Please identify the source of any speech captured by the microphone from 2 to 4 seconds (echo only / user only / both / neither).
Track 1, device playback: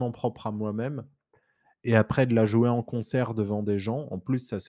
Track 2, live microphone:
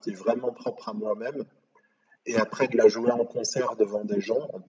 echo only